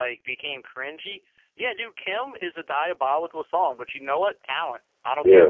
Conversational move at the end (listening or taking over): listening